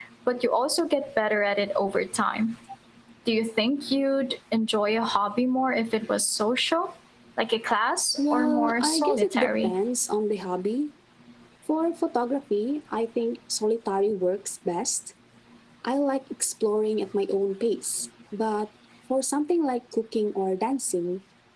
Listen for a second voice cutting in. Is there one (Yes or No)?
Yes